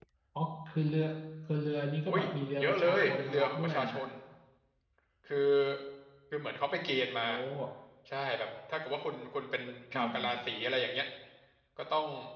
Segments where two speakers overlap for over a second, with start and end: 2.6-3.9

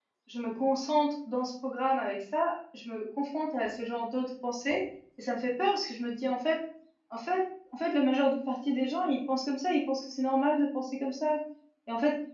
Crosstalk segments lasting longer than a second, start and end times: none

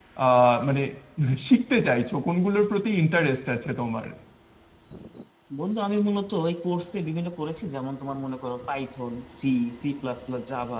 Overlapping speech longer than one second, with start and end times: none

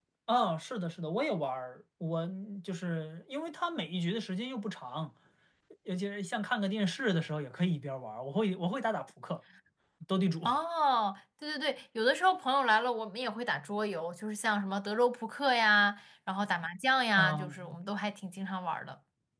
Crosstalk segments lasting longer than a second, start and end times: none

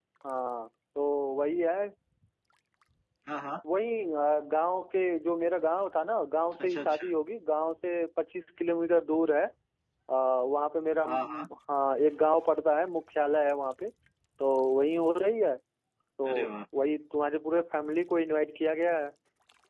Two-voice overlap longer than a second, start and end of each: none

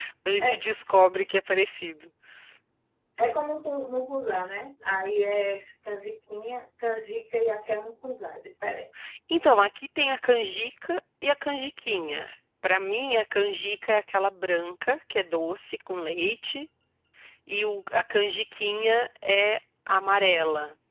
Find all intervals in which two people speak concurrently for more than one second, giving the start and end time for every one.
none

